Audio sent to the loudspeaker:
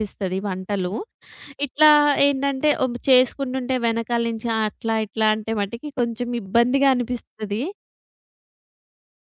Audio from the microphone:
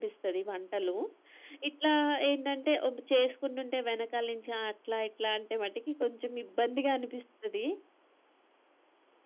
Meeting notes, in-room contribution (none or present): none